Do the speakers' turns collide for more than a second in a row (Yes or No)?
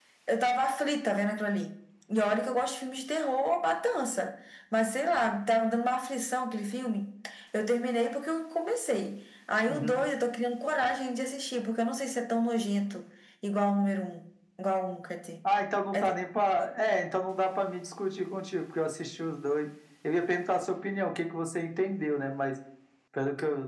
No